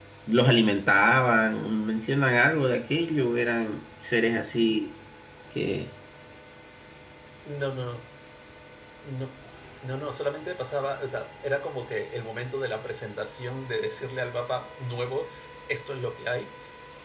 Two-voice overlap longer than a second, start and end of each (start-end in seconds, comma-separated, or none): none